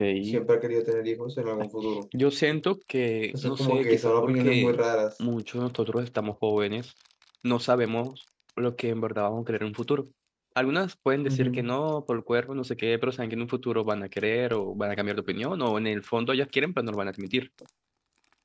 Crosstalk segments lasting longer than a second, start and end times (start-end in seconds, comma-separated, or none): 3.4-4.8